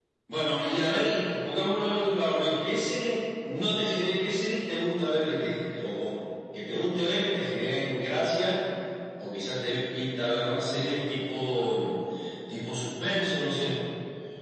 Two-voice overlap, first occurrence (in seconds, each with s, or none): none